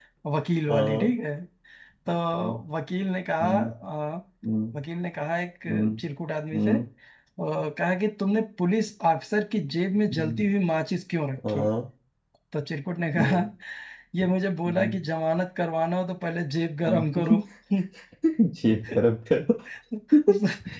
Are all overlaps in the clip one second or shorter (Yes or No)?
Yes